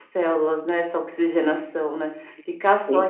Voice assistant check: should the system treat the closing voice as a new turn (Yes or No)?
No